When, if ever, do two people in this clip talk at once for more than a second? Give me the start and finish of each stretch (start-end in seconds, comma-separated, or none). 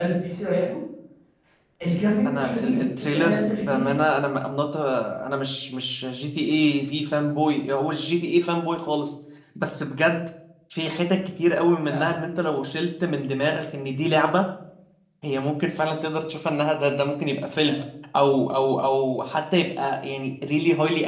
2.3-3.9